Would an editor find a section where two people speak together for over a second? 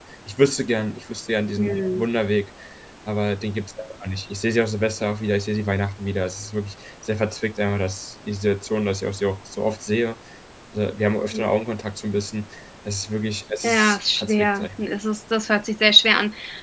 Yes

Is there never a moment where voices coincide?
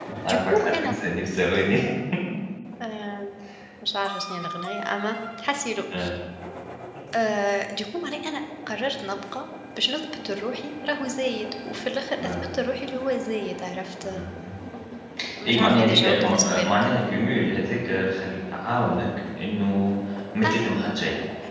No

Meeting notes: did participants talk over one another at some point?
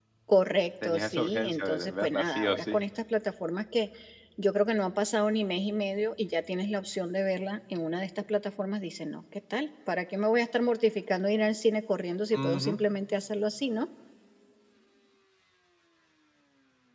Yes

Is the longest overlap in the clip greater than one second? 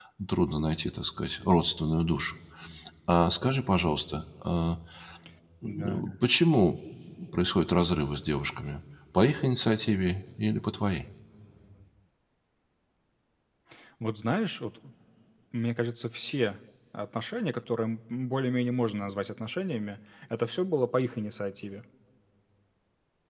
No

